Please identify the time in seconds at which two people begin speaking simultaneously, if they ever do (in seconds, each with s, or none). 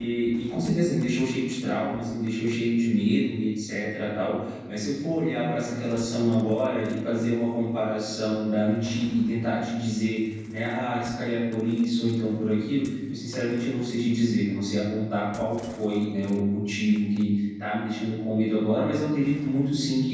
none